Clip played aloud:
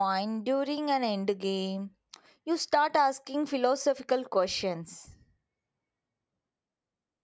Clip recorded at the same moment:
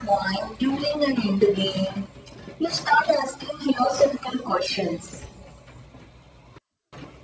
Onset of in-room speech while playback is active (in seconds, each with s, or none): none